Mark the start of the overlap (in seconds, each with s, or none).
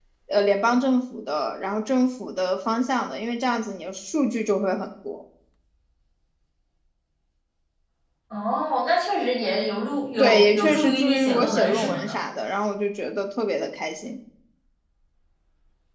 10.2 s